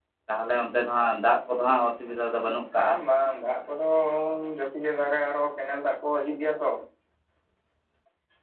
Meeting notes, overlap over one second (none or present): none